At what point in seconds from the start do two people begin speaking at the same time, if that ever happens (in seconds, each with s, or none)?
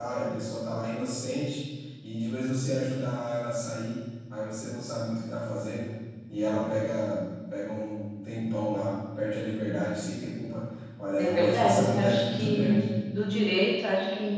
11.2 s